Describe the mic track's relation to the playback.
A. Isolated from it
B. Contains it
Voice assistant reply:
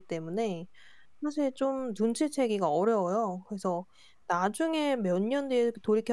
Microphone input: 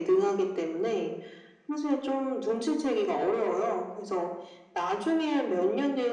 B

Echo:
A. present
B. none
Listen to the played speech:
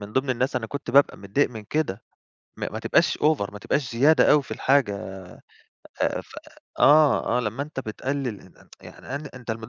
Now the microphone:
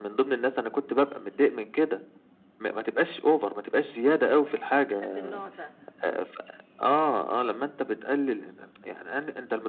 A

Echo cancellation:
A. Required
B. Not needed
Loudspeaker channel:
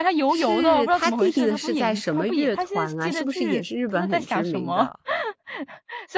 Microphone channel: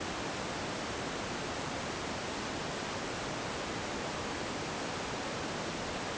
B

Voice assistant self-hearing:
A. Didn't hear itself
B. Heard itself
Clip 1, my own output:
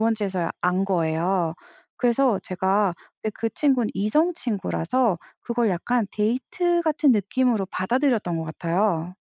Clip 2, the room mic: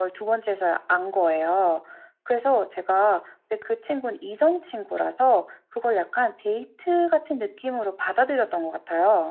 B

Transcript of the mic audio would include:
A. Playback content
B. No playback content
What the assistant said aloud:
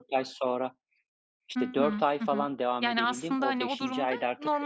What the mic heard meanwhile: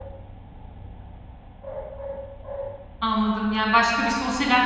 B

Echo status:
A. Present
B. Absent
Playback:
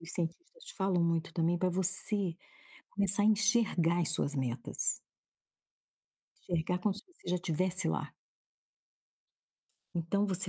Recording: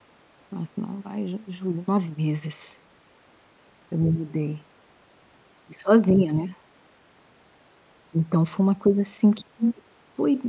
B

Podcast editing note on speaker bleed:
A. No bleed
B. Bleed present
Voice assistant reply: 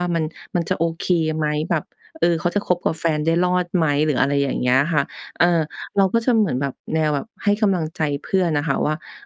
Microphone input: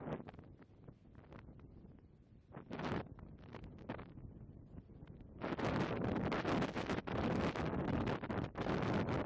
A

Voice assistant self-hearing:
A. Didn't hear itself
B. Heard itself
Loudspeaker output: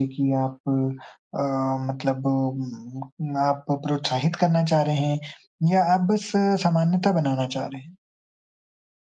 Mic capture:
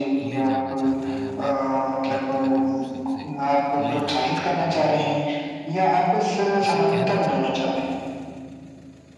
B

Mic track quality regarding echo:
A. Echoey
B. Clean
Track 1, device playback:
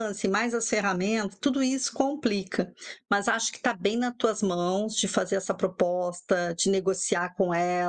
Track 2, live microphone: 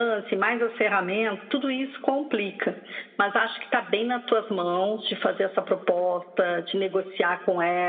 A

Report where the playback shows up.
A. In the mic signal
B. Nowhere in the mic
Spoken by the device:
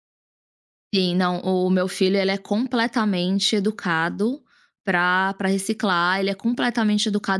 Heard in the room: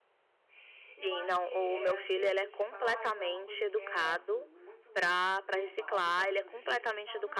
A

